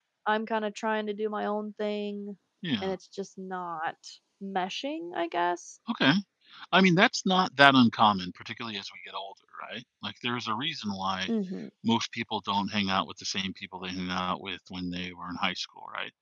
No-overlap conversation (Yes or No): Yes